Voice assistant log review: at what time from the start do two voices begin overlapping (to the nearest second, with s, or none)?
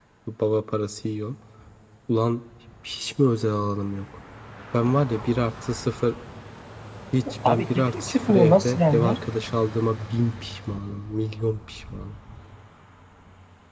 7 s